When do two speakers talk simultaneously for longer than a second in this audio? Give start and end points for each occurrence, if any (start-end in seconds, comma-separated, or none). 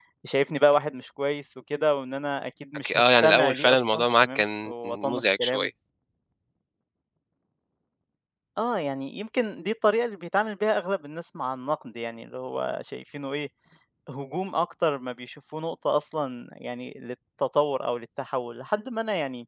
2.8-5.7